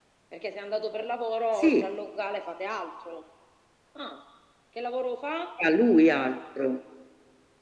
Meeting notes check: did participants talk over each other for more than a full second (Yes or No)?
No